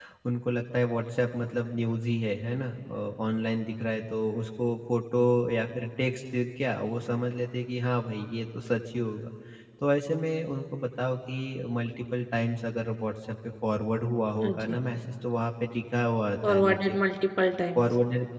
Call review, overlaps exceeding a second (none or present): none